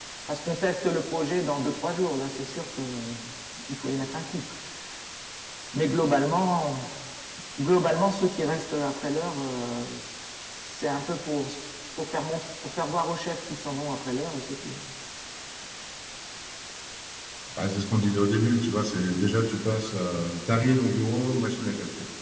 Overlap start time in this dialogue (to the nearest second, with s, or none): none